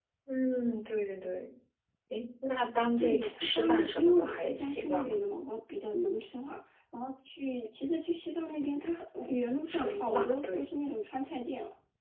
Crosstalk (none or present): present